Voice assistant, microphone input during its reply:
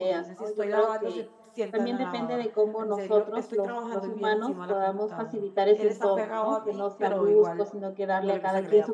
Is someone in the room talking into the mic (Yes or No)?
Yes